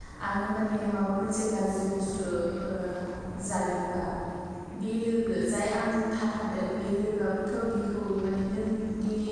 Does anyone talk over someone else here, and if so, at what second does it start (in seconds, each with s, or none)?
none